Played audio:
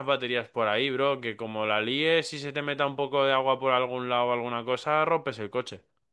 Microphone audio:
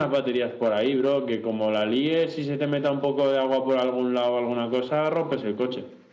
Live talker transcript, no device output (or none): none